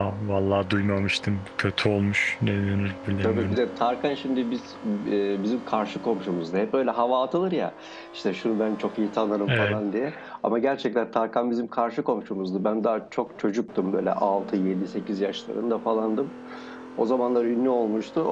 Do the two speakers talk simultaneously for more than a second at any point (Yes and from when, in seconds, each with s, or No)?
No